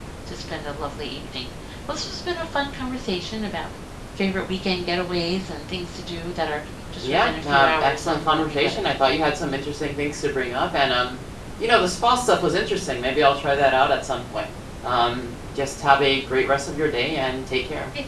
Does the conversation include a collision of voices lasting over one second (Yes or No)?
Yes